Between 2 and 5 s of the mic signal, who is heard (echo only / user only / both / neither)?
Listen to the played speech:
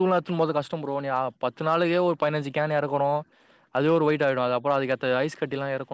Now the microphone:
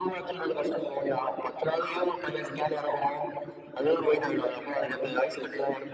echo only